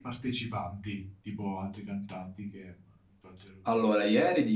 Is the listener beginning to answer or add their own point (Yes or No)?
Yes